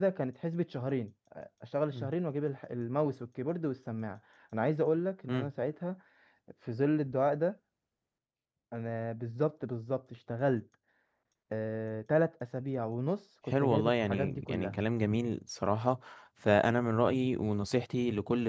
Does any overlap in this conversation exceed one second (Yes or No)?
Yes